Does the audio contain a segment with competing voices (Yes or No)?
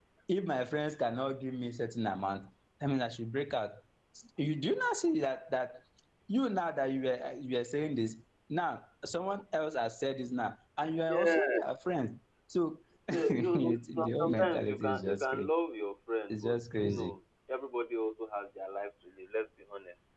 Yes